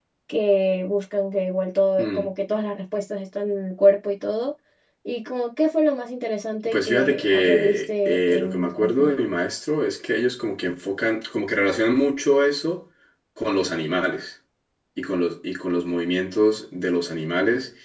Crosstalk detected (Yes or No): Yes